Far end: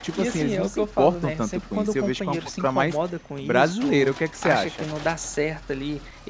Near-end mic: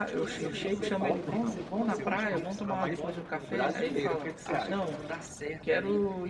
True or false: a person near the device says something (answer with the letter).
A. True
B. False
A